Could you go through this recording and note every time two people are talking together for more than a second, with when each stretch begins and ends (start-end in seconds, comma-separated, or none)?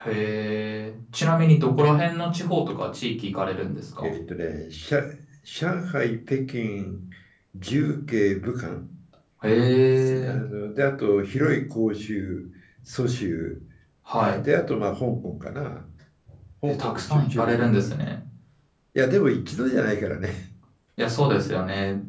16.7-17.9